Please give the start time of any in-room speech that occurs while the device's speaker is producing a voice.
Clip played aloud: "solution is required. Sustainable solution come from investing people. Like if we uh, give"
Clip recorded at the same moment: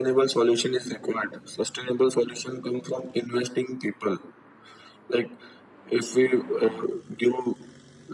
none

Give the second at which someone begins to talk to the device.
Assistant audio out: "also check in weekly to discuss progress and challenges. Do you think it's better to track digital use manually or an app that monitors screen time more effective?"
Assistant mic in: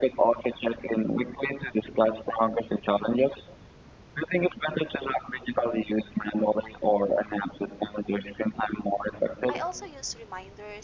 9.5 s

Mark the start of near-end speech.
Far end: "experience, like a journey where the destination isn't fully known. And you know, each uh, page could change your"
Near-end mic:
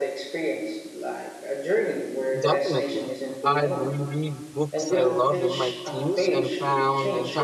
2.4 s

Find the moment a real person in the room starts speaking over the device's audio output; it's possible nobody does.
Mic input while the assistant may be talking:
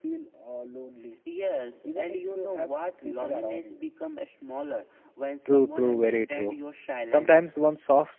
5.5 s

